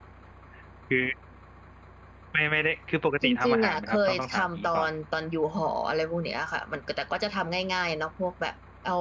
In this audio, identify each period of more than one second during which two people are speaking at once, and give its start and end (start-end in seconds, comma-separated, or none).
3.2-4.8